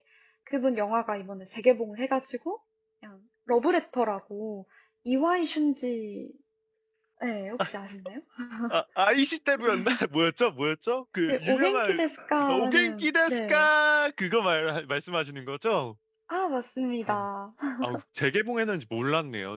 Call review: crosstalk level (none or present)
present